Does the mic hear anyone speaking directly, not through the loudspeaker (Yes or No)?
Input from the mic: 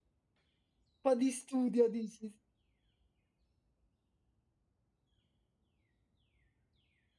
Yes